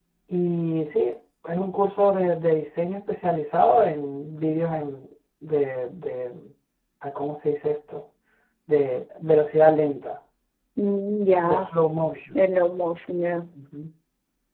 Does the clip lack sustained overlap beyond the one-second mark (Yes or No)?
Yes